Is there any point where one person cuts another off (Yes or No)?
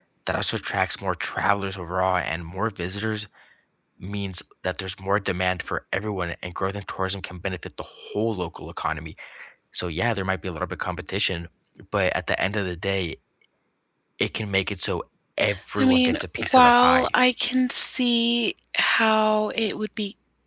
Yes